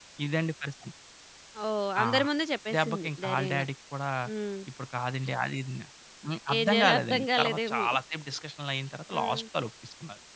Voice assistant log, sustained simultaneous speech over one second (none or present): present